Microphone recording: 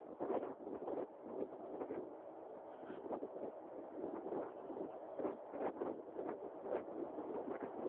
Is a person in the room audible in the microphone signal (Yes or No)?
No